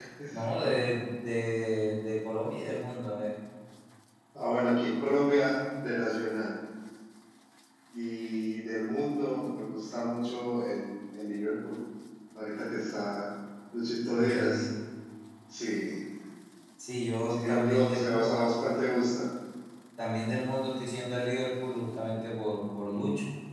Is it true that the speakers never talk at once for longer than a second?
No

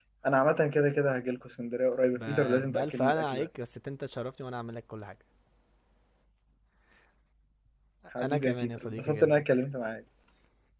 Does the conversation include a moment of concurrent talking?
Yes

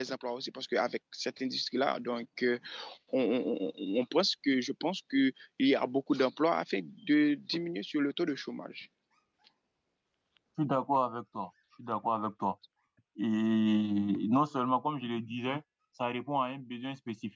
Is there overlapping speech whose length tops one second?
No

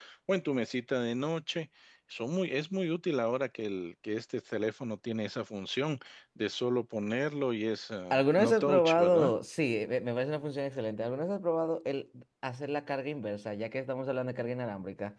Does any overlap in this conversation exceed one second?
Yes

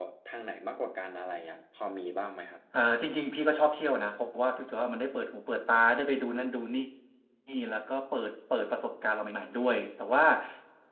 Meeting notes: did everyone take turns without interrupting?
Yes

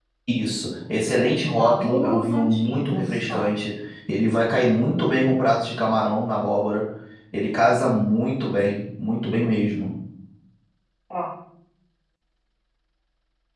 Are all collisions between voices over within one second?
No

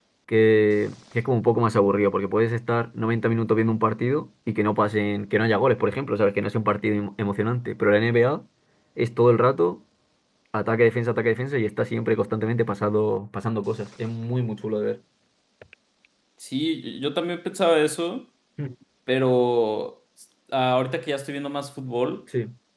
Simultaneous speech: No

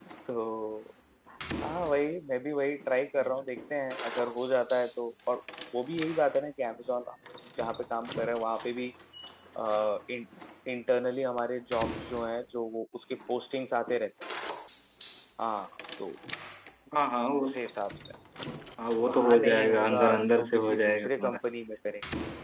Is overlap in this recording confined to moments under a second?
No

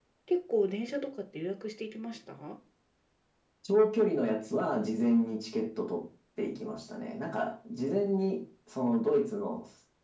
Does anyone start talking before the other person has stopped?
No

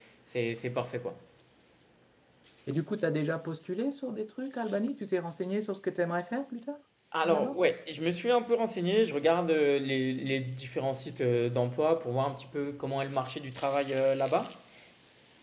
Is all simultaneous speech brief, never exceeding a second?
Yes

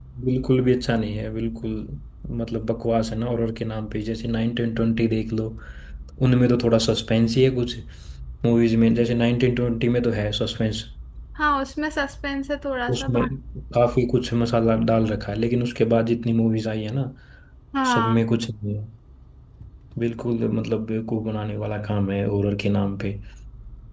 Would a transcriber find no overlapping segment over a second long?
Yes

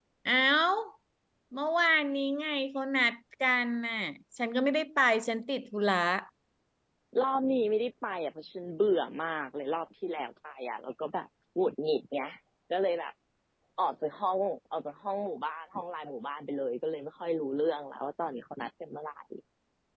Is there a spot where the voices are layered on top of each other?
No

